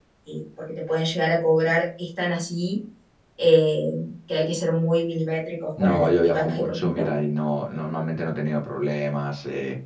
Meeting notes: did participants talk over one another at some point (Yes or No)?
Yes